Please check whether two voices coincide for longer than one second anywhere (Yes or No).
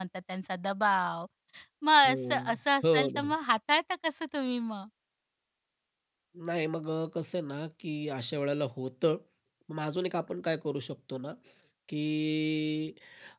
Yes